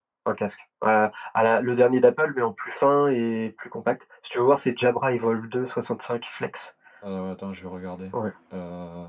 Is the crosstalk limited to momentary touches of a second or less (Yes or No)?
Yes